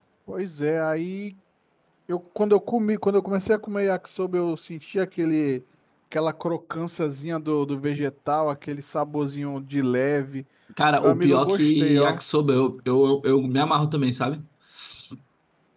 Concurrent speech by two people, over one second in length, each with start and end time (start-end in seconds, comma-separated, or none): 11.0-12.2